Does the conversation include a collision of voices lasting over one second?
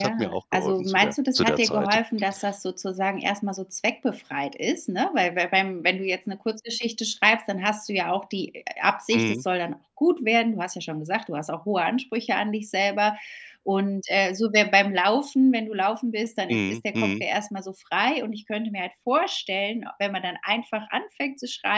Yes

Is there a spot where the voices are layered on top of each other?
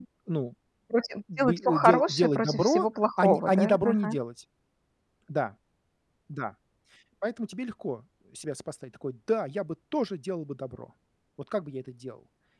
Yes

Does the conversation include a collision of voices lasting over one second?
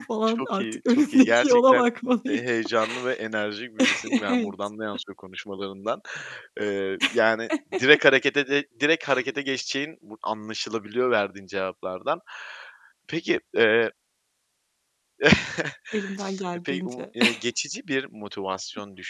Yes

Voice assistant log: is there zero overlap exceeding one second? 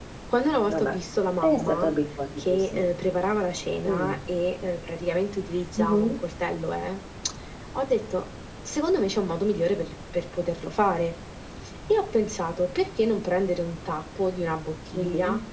Yes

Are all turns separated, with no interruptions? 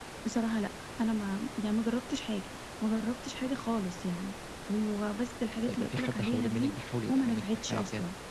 No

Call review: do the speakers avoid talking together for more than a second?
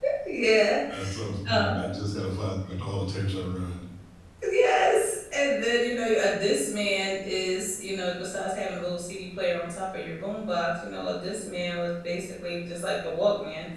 Yes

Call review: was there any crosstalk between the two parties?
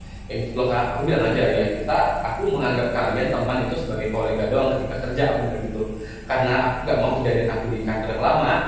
No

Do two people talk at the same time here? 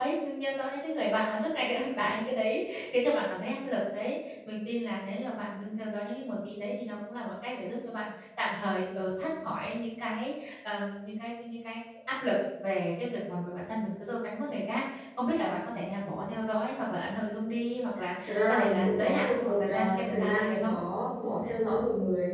Yes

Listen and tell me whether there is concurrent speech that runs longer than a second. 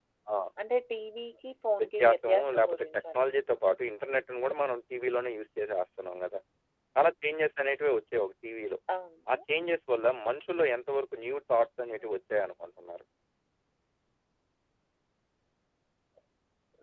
Yes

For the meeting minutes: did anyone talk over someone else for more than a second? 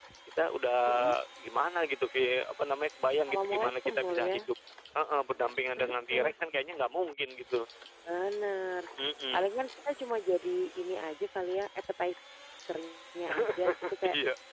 Yes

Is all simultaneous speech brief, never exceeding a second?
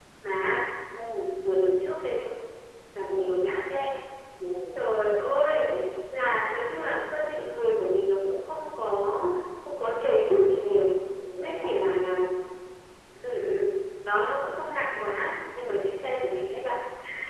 Yes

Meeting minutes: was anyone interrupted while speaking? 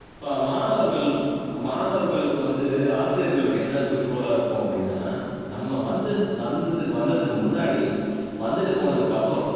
No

